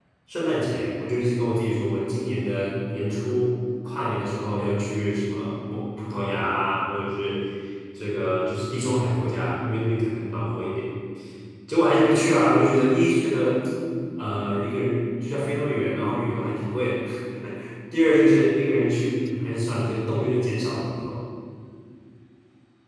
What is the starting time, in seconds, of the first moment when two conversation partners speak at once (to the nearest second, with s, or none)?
none